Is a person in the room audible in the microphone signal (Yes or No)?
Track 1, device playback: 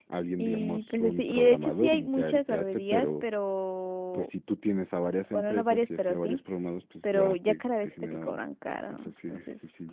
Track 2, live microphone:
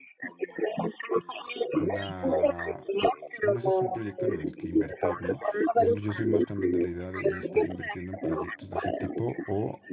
Yes